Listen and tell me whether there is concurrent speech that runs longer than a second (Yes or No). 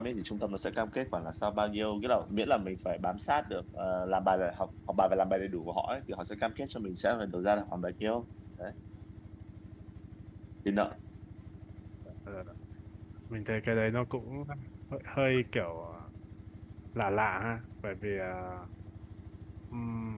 No